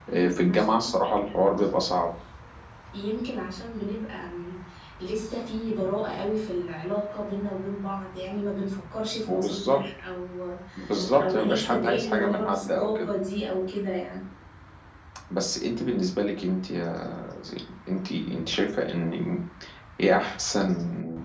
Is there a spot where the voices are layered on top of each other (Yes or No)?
Yes